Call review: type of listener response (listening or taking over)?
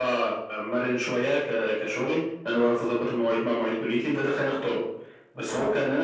listening